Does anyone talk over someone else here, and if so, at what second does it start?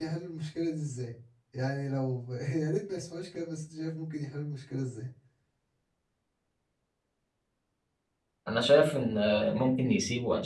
none

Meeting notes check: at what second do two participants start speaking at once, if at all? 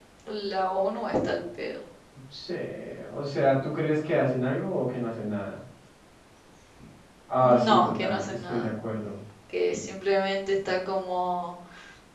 7.3 s

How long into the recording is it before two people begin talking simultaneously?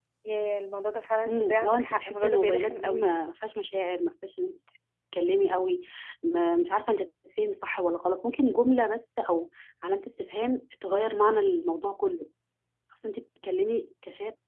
1.3 s

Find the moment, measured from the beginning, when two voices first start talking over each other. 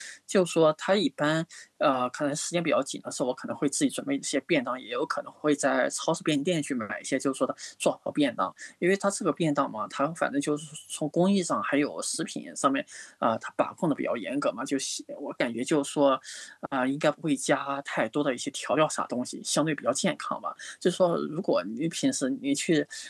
none

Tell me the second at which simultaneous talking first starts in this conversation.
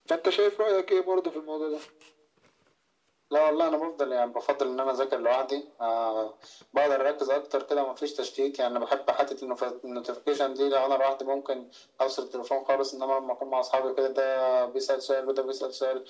none

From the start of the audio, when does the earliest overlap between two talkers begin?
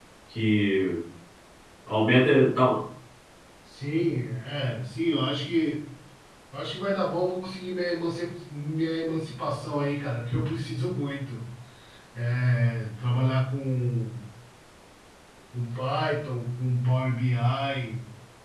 none

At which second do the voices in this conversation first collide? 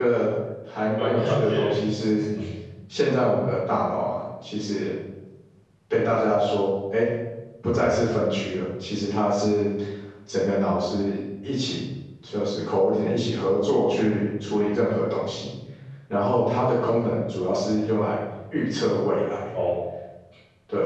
1.0 s

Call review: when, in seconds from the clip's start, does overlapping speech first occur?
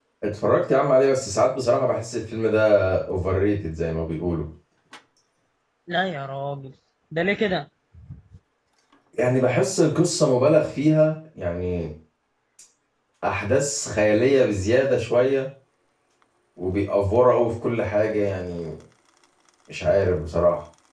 none

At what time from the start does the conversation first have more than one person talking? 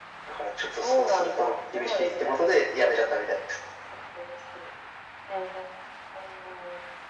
0.6 s

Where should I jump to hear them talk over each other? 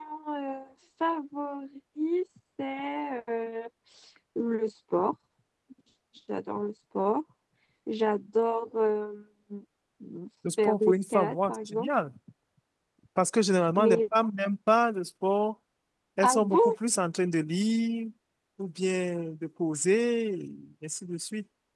10.6 s

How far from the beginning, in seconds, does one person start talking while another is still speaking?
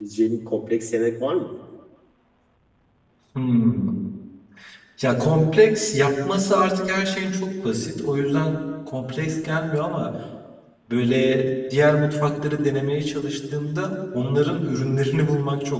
none

